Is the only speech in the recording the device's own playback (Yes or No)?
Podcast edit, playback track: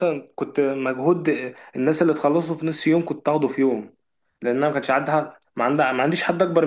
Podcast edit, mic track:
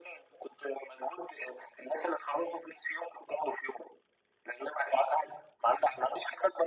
Yes